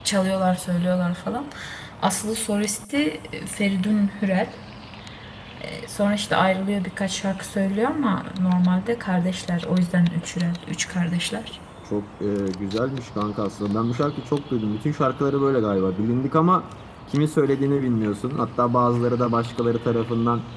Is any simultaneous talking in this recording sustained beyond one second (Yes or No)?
No